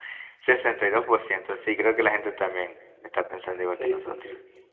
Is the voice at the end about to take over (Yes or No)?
Yes